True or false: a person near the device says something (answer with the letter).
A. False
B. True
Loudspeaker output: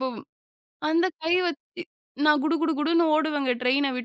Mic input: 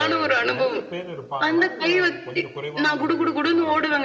B